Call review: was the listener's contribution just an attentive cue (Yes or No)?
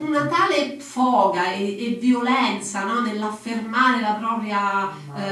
No